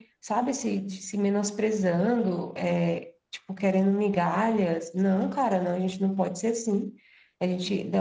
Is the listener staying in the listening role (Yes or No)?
Yes